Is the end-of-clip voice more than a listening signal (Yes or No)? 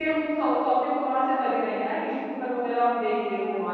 Yes